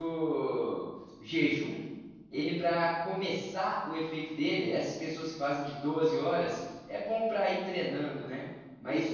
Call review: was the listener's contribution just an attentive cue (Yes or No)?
Yes